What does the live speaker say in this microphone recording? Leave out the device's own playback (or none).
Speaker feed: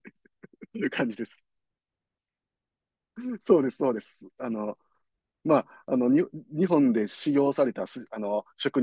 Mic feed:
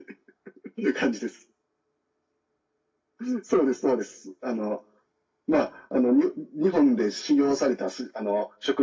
none